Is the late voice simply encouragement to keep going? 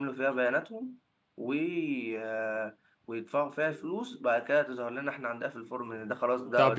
No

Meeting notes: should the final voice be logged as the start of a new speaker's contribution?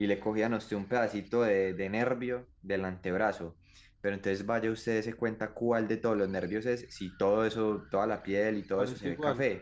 No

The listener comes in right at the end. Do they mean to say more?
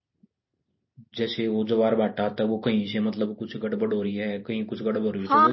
Yes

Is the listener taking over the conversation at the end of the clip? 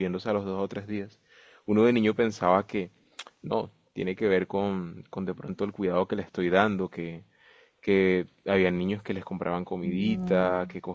No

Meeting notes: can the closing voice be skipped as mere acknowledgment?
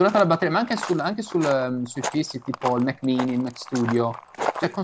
Yes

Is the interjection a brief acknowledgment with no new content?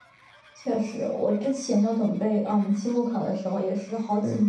Yes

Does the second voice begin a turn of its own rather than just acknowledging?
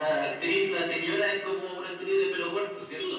Yes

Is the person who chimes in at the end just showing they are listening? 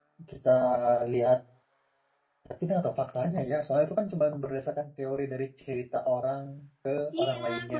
No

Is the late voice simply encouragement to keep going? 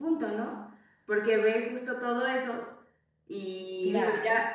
Yes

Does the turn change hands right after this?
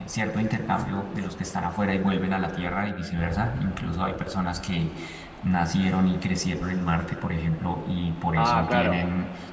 No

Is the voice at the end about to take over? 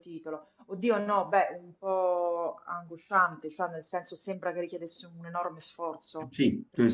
Yes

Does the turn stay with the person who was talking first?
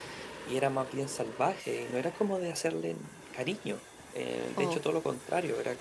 Yes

